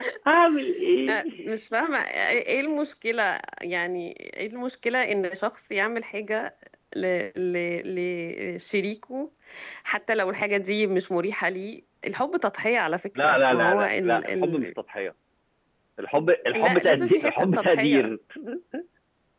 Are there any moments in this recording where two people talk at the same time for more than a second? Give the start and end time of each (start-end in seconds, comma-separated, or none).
13.2-14.6, 16.5-18.1